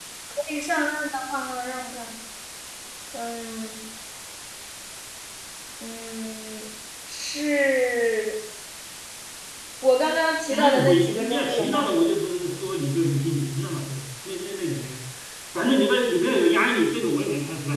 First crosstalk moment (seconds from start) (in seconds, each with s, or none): 10.5 s